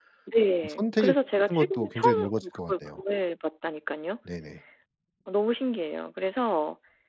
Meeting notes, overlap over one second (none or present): present